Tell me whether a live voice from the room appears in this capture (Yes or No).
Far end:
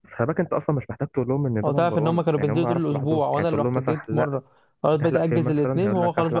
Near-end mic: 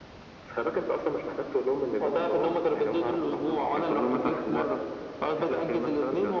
No